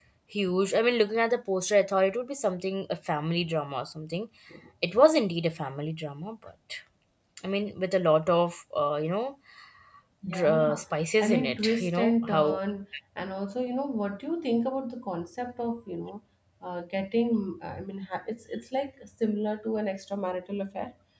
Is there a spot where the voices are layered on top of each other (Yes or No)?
Yes